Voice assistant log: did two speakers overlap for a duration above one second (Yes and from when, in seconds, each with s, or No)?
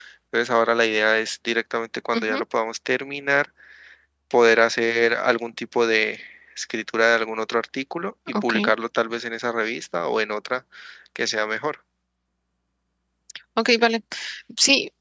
No